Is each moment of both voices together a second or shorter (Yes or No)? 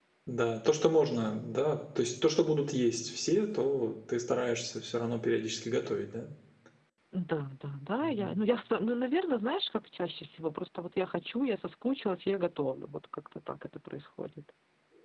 Yes